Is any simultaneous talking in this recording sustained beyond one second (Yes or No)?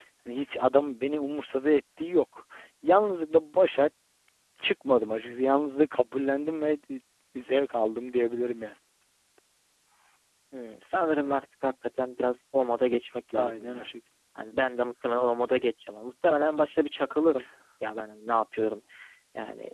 No